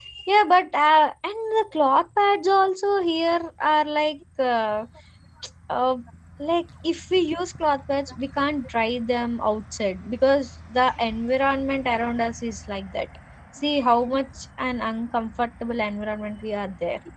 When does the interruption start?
none

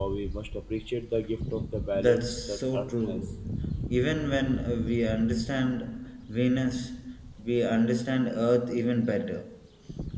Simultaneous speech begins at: 2 s

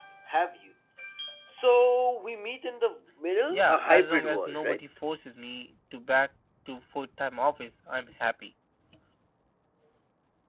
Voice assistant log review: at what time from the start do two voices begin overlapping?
4 s

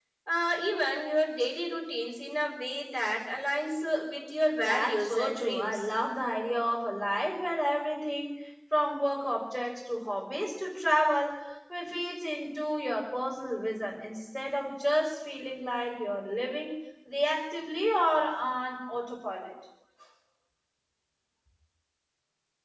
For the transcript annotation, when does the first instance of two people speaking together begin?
5 s

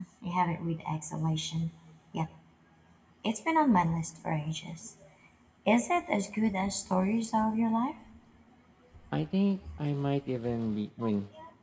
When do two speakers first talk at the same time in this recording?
none

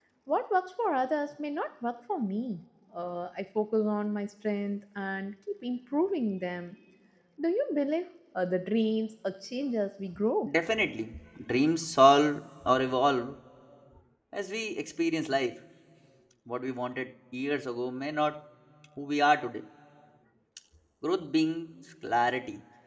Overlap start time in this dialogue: none

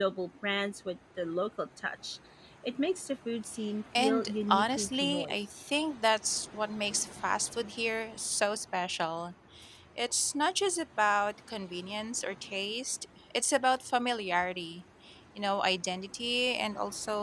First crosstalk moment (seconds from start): 4 s

